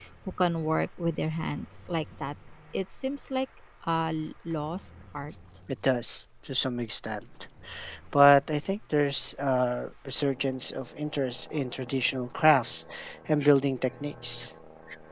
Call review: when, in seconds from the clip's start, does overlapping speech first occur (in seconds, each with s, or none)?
none